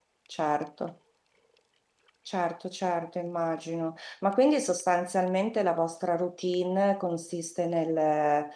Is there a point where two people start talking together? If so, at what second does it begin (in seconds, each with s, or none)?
none